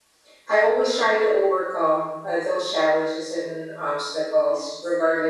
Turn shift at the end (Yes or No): No